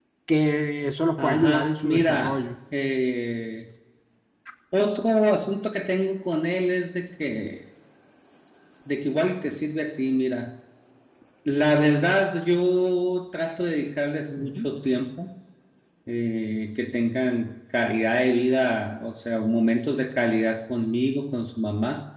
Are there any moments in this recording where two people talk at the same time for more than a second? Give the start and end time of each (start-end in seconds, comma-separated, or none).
1.2-2.4